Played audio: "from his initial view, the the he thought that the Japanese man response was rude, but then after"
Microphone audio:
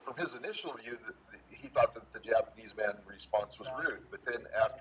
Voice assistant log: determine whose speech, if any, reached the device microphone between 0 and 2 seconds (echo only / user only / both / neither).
echo only